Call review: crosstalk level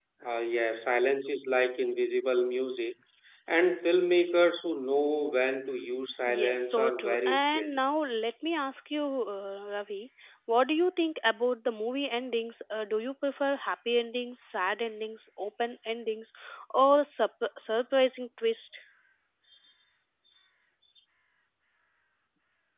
present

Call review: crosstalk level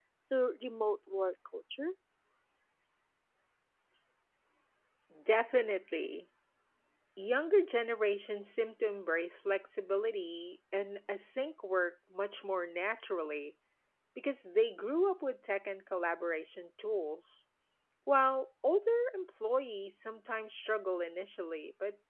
none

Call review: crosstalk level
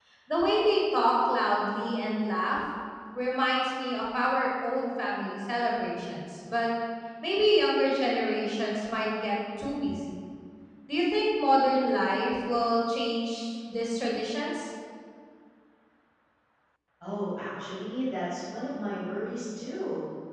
none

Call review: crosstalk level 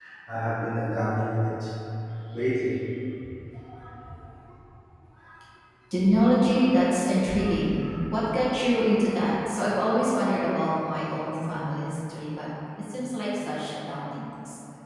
none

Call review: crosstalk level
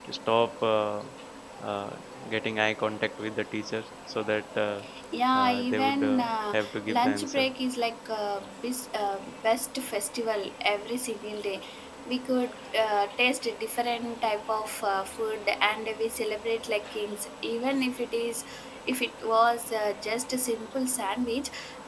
present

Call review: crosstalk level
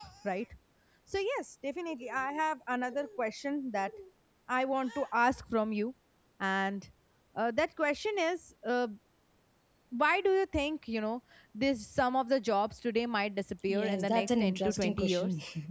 present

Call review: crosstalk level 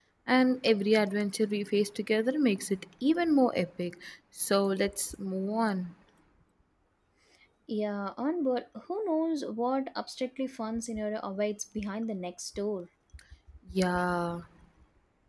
none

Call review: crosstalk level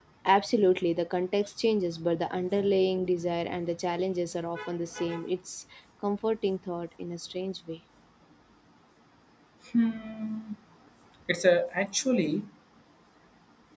none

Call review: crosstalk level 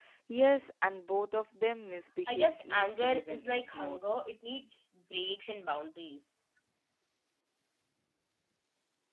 present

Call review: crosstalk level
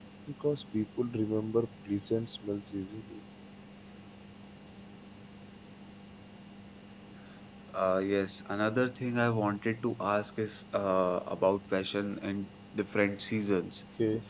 none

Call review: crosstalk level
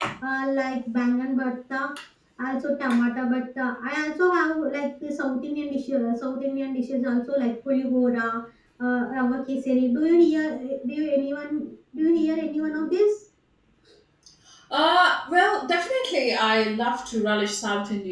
none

